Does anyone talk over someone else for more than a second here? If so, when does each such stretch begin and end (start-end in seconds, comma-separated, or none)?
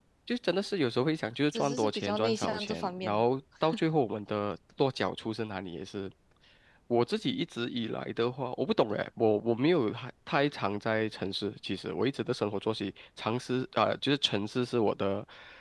1.5-3.2